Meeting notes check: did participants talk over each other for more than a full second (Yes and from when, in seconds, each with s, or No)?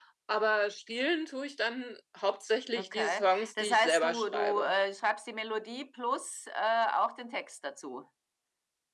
Yes, from 2.7 s